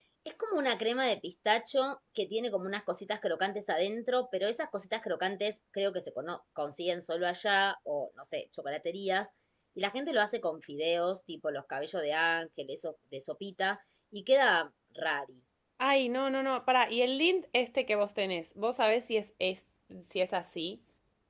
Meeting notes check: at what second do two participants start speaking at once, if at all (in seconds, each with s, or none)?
none